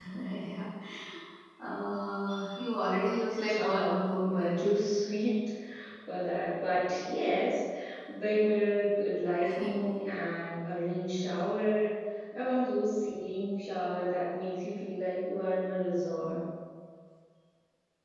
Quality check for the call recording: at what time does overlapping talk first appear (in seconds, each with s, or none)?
3.3 s